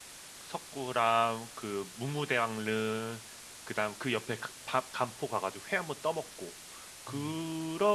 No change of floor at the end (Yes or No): Yes